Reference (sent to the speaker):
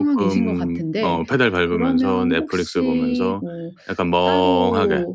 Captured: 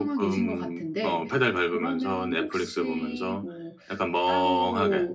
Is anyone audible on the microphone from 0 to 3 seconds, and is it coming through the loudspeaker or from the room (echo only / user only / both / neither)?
echo only